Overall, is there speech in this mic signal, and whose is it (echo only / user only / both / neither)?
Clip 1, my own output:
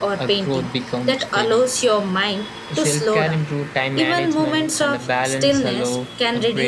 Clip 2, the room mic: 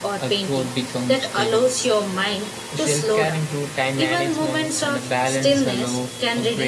echo only